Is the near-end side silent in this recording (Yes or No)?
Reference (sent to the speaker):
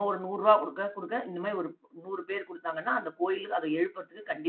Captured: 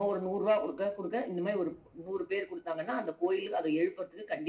Yes